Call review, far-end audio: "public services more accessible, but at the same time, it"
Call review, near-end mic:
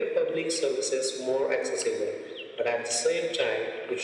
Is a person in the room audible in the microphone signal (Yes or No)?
No